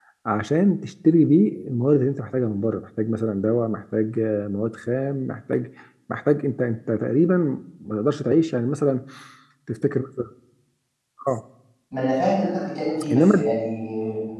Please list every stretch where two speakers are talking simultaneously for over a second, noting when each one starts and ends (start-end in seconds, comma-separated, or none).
none